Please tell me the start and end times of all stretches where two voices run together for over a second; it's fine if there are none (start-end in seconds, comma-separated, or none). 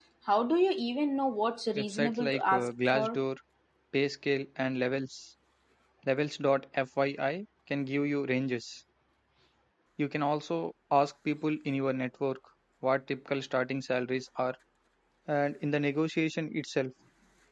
1.8-3.2